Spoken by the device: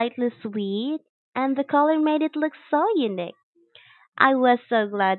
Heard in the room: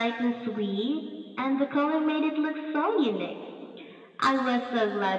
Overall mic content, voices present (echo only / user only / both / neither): echo only